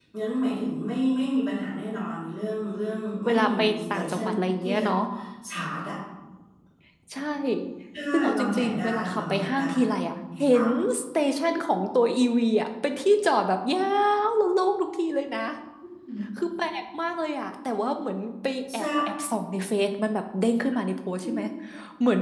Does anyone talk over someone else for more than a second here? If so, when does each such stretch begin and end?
3.2-4.8, 8.4-9.6

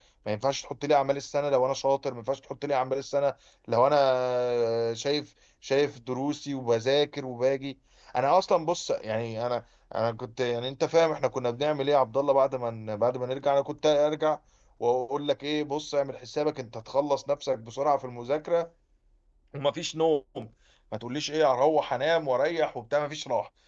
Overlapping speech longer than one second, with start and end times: none

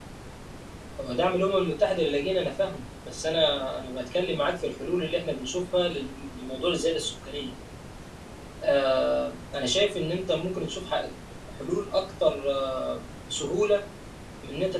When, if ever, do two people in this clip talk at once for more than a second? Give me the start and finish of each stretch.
none

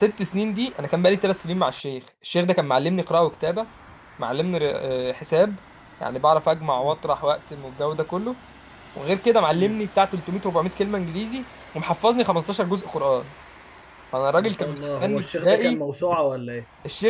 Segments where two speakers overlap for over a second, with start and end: 14.4-15.8

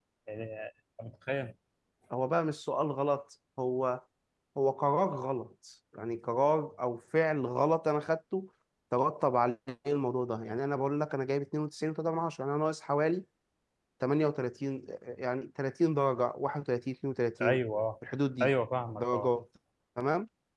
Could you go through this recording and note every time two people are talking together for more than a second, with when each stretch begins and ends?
none

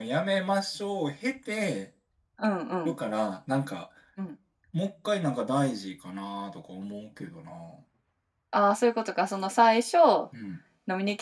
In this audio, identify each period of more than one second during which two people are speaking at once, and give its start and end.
none

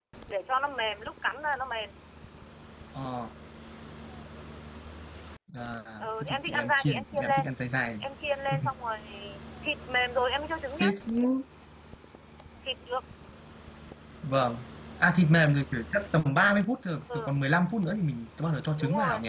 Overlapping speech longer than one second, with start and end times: 6.2-7.5

